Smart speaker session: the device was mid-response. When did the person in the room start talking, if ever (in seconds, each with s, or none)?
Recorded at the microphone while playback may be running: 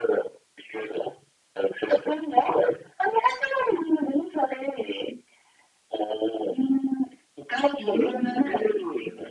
7.8 s